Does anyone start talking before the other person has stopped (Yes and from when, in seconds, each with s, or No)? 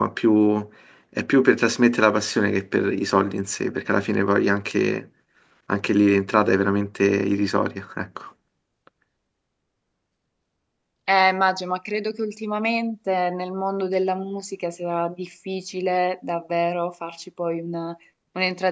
No